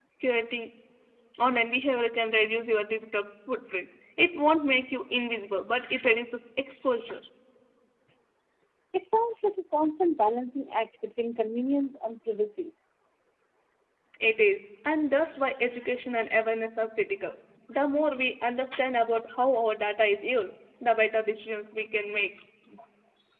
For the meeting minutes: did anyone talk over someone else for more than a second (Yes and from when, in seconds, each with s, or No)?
No